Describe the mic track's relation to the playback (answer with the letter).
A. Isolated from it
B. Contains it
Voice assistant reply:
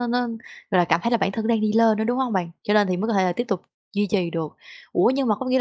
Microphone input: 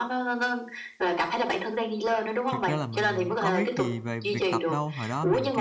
B